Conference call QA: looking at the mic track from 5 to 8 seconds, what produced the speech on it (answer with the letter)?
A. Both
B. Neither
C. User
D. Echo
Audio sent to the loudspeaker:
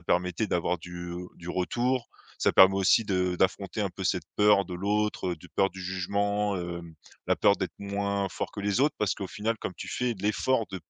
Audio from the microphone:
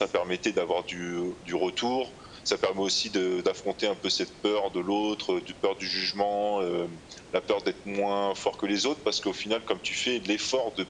D